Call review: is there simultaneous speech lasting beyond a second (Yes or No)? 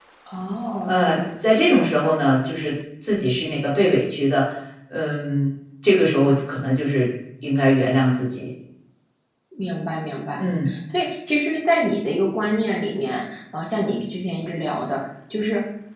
No